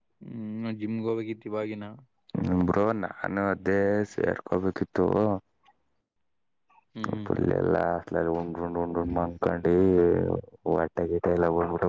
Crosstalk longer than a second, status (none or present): none